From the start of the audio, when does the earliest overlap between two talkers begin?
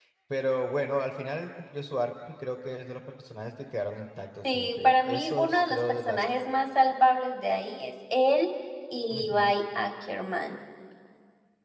4.5 s

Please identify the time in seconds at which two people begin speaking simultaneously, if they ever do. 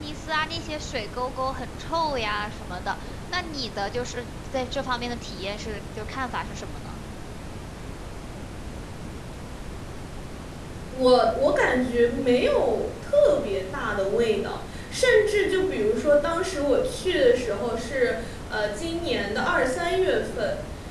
none

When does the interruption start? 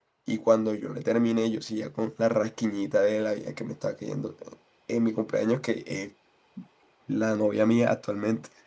none

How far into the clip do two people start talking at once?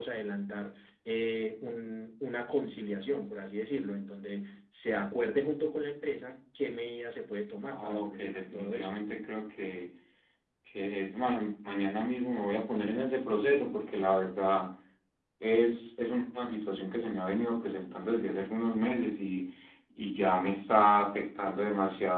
7.7 s

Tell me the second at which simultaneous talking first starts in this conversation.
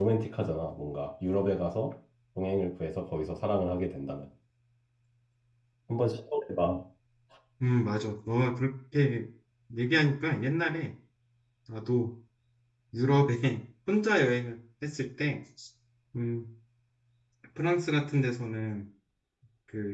none

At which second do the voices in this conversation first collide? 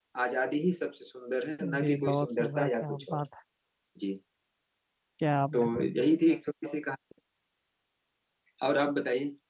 1.8 s

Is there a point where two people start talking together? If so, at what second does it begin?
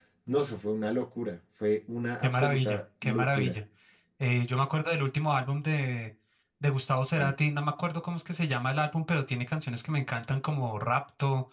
2.2 s

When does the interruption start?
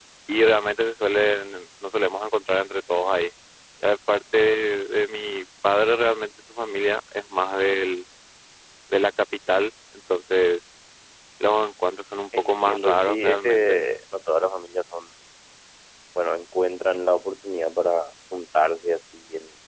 12.3 s

